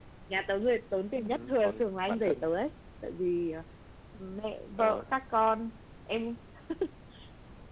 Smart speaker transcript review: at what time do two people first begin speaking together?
1.1 s

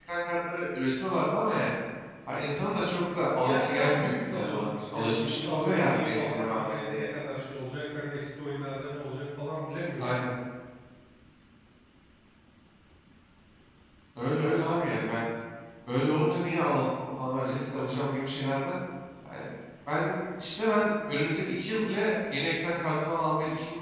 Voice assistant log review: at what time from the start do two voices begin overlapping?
3.4 s

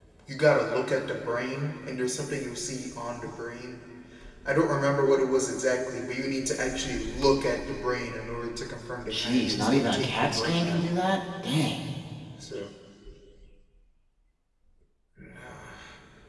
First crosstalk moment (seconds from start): 9.1 s

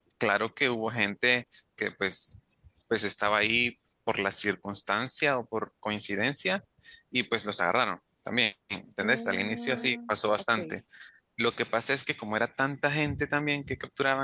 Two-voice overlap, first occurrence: 9.0 s

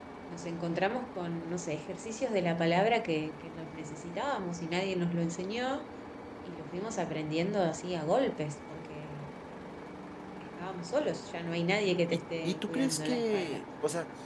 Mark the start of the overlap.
12.1 s

